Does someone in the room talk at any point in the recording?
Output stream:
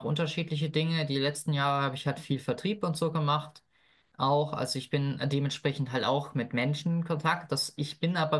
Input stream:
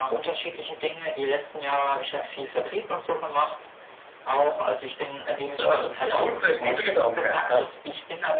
Yes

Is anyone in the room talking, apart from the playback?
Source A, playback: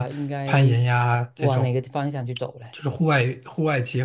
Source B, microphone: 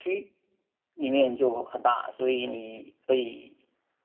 Yes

